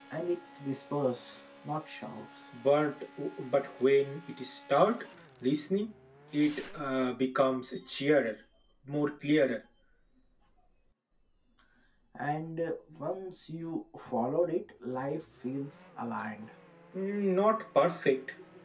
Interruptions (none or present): none